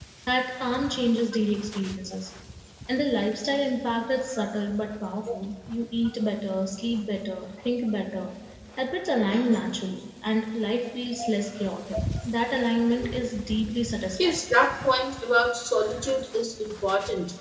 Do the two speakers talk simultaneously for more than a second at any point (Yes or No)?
No